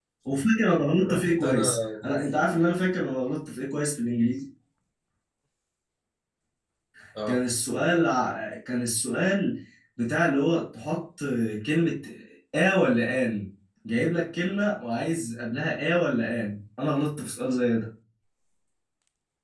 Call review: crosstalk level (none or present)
present